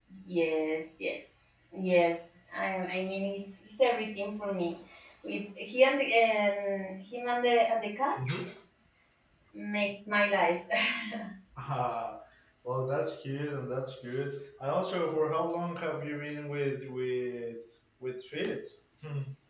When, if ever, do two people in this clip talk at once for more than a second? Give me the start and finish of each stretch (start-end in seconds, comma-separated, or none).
none